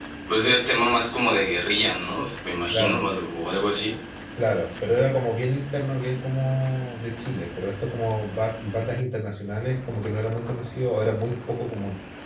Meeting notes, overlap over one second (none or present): none